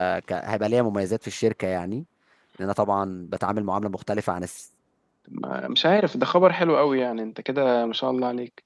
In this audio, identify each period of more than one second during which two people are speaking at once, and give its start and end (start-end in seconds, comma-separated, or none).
none